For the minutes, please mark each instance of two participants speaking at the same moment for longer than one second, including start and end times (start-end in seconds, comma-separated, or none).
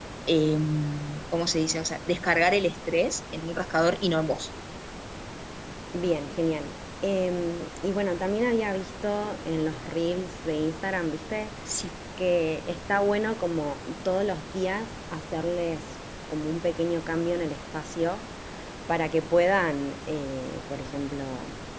none